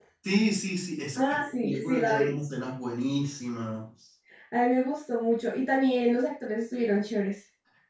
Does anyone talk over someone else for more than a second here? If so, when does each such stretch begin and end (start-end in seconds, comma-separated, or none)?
1.1-2.4